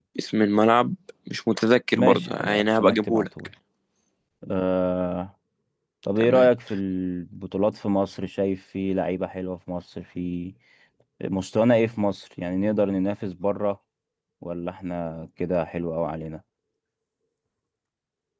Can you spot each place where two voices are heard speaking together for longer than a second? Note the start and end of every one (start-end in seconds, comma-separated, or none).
1.9-3.5